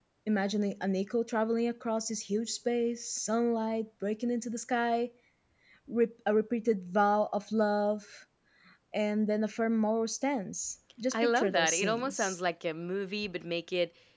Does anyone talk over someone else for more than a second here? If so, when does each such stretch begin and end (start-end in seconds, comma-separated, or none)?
11.1-12.4